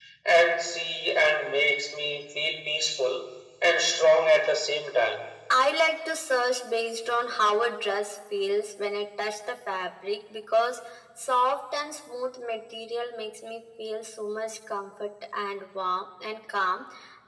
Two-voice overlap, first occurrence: none

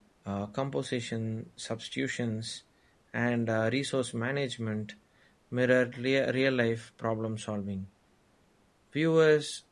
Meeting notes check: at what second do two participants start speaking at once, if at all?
none

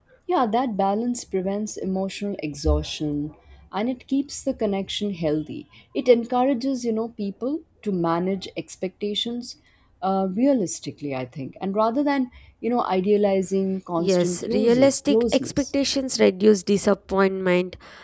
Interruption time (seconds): 14.0 s

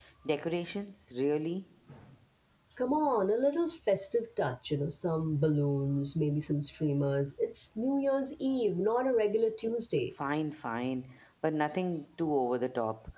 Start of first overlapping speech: none

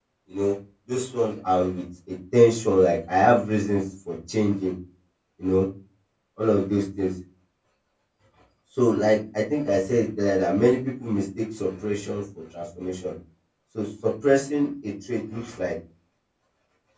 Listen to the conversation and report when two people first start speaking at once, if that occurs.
none

